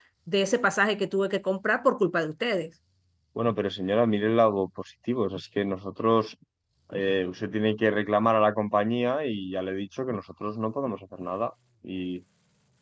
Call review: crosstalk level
none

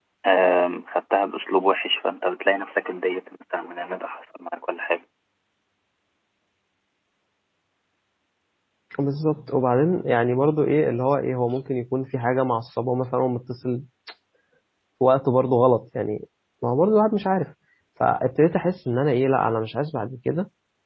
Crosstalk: none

